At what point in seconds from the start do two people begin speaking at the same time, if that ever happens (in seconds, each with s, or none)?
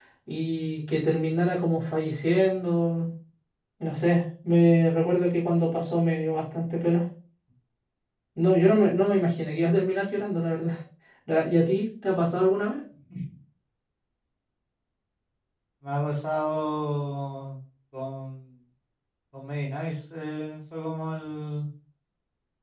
none